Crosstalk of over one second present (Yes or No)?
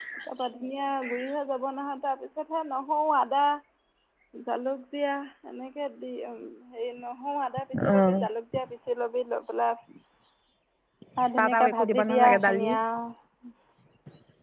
Yes